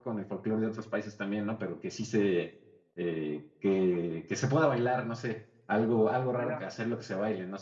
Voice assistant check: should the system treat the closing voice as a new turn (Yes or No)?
No